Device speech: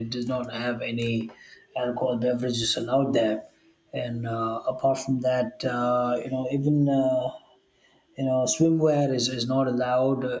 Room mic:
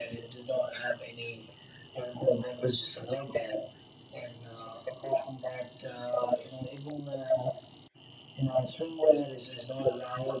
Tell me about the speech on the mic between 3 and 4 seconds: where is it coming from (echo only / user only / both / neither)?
echo only